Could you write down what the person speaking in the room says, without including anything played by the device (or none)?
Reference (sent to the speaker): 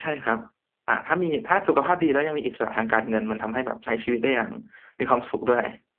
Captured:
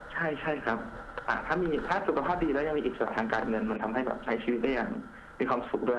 none